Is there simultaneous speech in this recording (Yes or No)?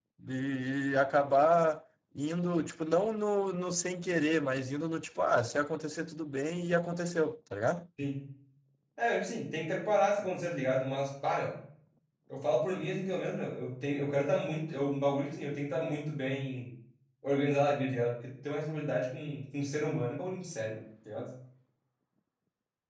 No